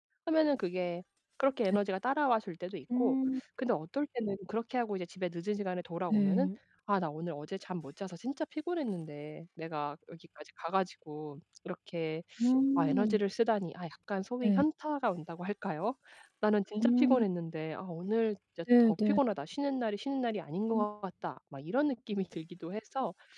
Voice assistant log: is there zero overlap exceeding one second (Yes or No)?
Yes